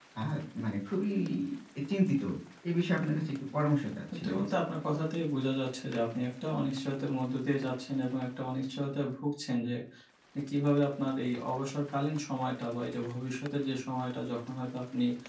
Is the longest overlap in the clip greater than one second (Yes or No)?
No